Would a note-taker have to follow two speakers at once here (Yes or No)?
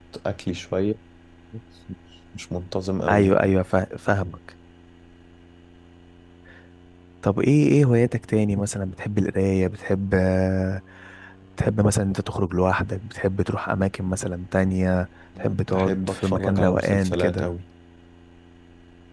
Yes